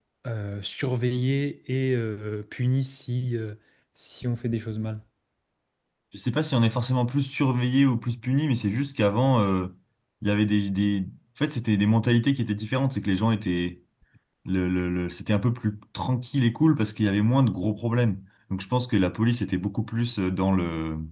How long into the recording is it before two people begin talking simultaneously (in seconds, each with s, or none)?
none